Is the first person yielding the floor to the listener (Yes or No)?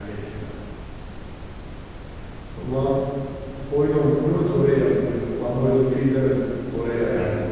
Yes